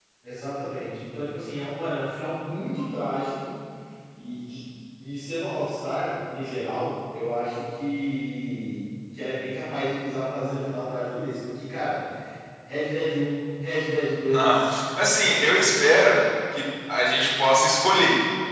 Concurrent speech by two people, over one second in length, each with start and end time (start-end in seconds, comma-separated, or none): none